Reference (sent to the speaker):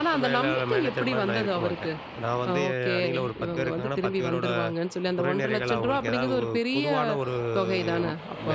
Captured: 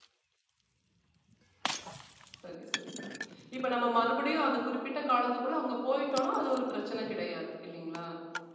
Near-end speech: present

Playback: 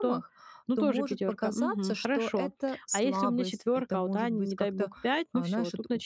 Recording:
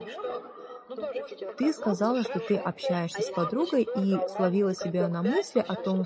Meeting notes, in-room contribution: present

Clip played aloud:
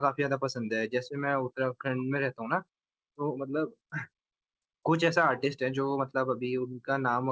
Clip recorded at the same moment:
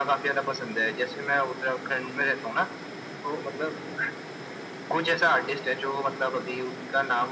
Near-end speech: none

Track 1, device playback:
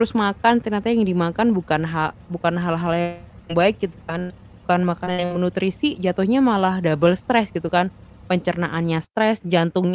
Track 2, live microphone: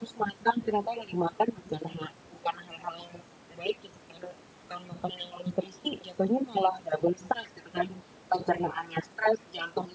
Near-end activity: none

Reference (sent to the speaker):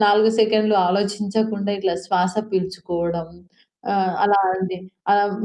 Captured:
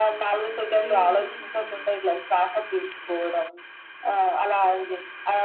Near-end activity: present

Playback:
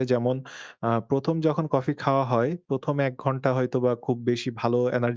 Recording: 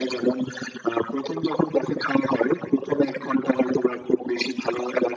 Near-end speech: none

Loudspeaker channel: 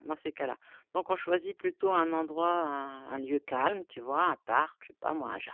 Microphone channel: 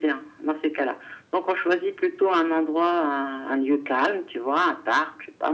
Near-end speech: none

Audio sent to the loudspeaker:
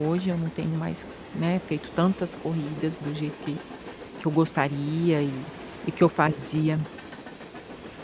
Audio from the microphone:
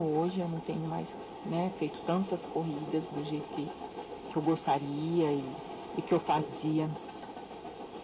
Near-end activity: none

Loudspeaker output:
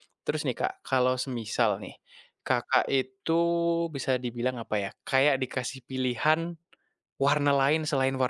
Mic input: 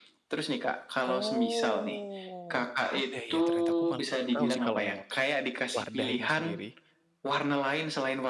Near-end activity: present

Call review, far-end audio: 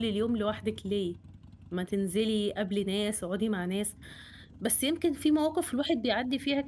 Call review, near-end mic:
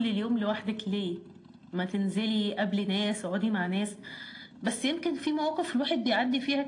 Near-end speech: none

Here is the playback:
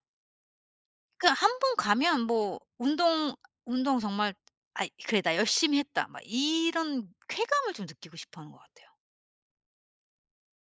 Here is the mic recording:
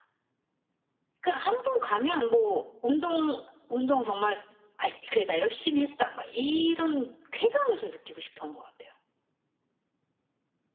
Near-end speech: none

